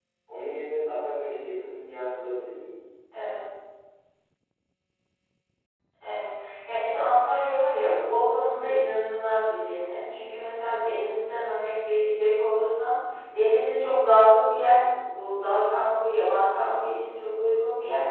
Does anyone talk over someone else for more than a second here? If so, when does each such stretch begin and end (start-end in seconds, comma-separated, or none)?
none